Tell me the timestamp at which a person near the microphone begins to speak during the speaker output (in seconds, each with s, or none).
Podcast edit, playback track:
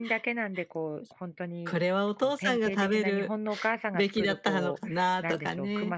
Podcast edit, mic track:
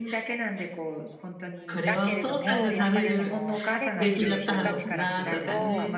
1.8 s